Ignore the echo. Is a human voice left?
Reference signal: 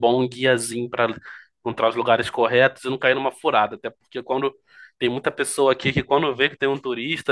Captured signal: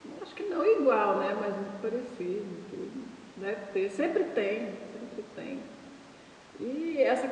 Yes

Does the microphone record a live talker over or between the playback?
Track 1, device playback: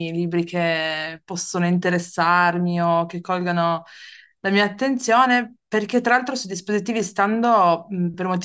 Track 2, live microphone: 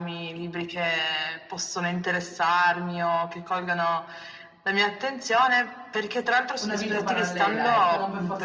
Yes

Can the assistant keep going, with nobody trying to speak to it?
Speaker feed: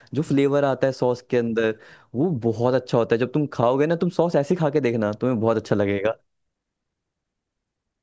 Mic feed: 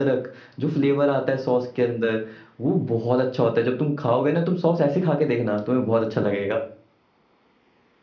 Yes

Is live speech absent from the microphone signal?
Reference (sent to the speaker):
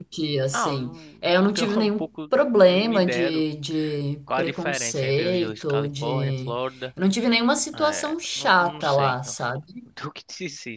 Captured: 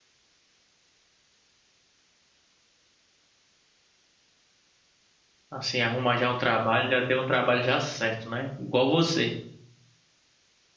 No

